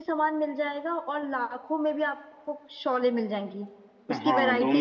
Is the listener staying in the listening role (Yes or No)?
No